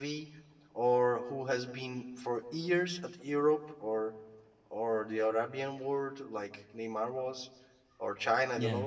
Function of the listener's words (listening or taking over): listening